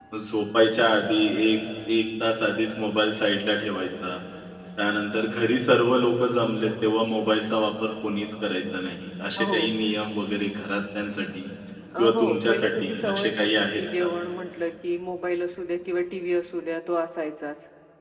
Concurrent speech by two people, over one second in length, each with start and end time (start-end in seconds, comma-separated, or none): 12.0-14.1